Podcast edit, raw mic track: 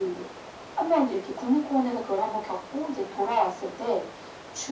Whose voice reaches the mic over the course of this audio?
echo only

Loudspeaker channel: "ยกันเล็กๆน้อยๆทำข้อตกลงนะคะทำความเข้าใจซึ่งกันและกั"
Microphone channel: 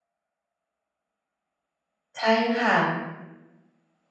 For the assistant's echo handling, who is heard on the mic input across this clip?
user only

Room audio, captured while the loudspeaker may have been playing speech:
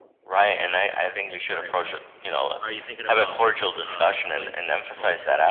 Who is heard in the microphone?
both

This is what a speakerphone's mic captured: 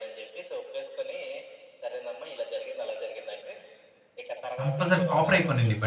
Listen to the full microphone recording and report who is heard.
both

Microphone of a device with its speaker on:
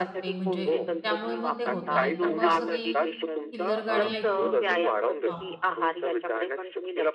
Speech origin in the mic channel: both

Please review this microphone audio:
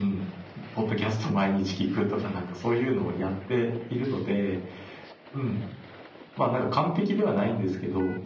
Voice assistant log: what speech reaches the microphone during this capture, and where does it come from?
echo only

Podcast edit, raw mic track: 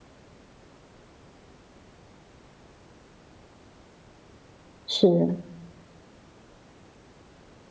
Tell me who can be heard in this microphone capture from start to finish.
user only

